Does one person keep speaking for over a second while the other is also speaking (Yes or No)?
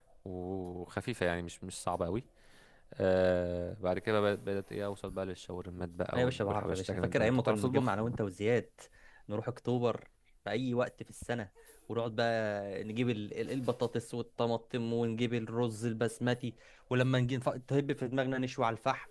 Yes